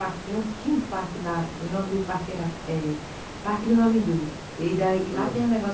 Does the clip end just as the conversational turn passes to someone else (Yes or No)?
No